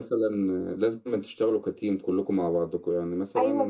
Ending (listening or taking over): taking over